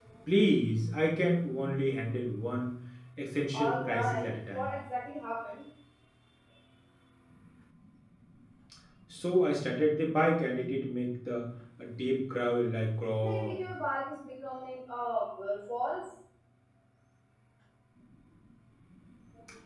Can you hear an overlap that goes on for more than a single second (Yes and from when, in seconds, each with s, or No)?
Yes, from 3.5 s